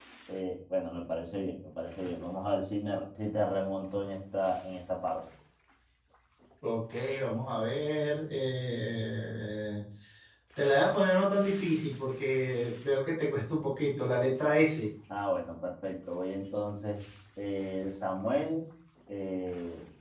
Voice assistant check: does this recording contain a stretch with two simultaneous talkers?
No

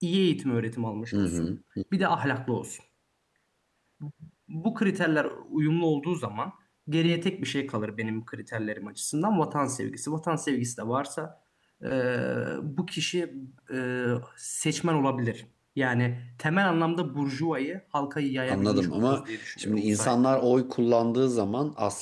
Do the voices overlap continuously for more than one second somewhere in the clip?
Yes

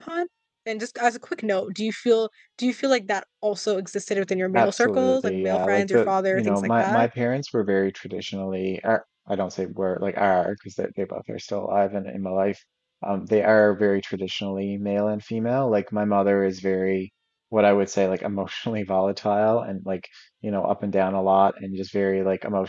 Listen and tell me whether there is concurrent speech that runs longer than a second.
Yes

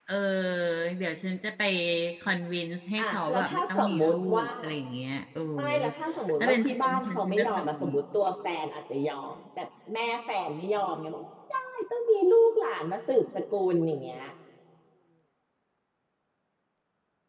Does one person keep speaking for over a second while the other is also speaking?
Yes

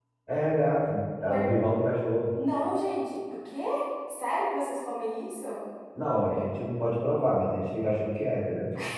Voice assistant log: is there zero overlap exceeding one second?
Yes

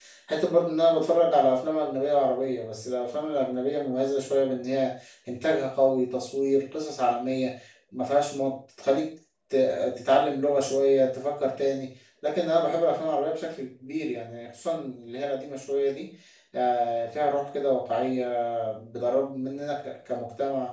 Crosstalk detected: No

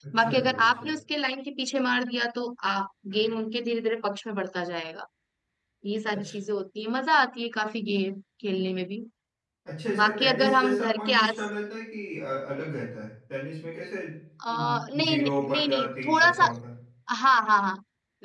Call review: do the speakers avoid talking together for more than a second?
No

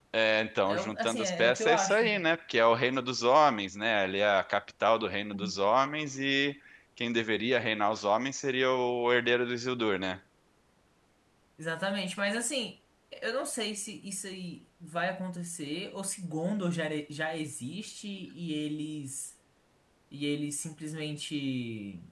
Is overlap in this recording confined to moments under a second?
No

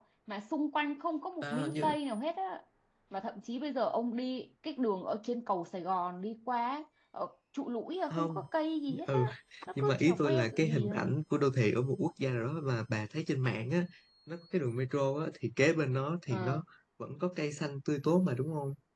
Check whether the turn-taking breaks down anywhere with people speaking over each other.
Yes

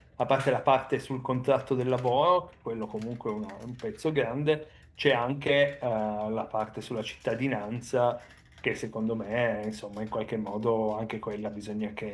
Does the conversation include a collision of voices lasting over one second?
No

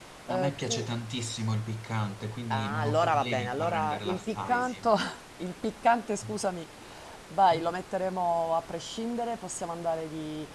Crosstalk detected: Yes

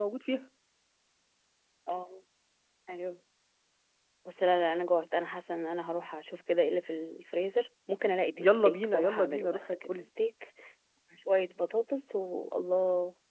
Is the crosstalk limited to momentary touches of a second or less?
No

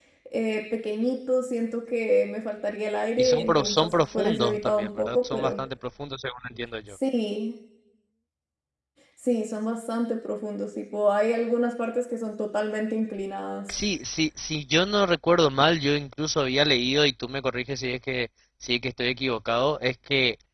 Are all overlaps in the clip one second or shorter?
No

